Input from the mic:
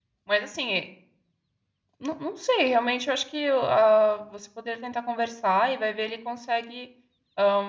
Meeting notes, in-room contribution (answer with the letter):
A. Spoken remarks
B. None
A